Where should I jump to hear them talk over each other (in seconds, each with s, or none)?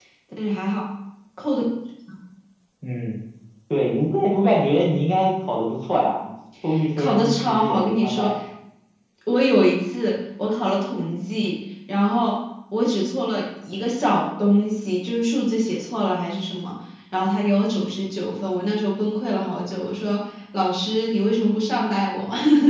7.0 s